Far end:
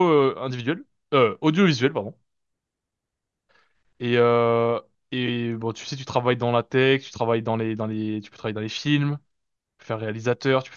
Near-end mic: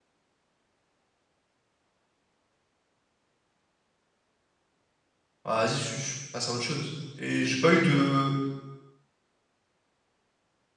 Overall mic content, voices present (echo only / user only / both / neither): user only